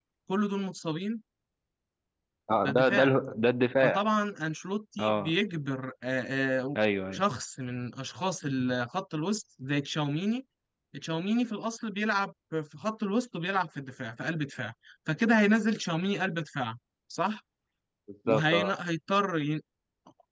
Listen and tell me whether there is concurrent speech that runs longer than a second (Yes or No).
No